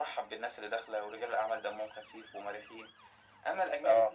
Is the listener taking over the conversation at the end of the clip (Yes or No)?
No